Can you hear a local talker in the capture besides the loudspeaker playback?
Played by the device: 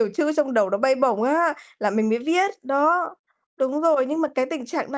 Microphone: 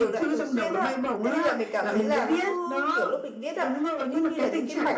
Yes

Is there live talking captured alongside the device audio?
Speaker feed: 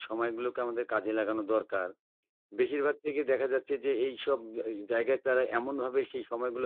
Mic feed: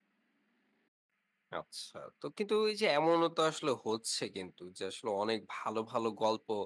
Yes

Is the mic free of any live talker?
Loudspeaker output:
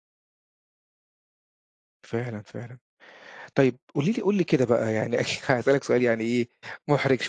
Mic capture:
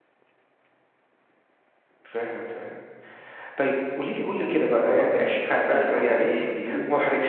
No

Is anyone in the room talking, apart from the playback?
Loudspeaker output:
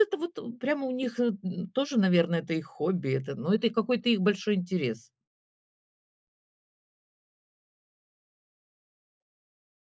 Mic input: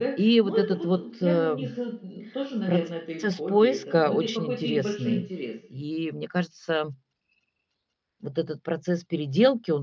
Yes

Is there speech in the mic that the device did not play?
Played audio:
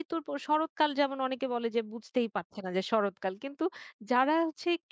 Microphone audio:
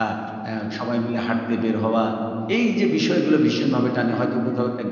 Yes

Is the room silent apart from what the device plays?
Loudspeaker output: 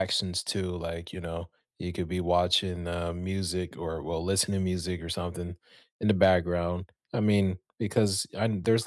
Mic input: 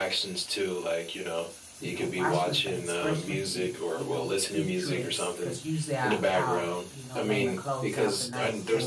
No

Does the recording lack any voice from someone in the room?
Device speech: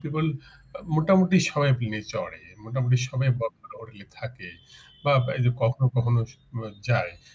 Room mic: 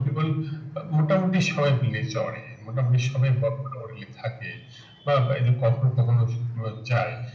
Yes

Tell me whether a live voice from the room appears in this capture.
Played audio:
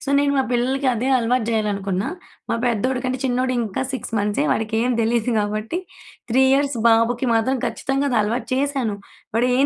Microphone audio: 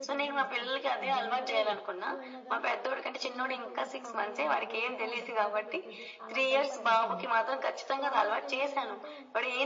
Yes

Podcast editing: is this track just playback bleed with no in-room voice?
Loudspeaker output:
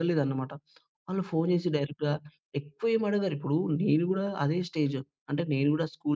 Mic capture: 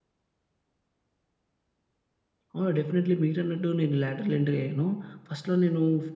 No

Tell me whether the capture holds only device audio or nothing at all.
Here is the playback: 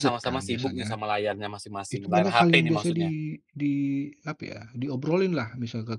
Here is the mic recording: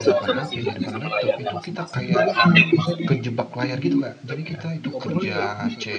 No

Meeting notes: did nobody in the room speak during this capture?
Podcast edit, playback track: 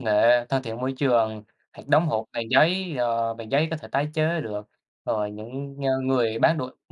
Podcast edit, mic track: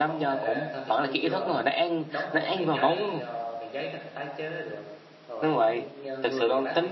No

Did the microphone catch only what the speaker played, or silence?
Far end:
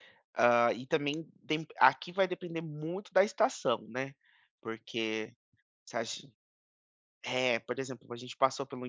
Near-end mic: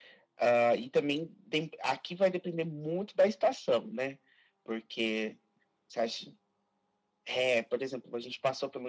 Yes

